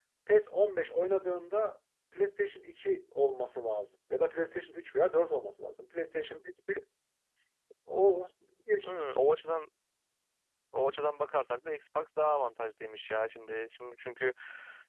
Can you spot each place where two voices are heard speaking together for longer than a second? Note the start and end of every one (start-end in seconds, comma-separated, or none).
none